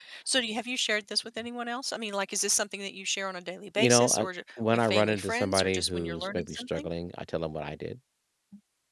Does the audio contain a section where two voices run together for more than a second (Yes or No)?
Yes